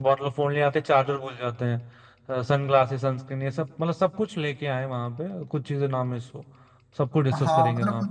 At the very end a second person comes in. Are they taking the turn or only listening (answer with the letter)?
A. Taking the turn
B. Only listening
A